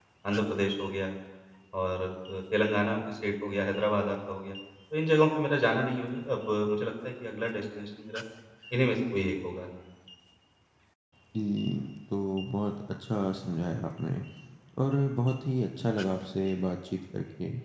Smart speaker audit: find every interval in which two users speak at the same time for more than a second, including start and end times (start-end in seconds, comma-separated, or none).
none